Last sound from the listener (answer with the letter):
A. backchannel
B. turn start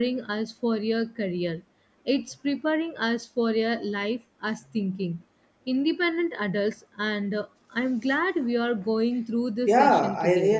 B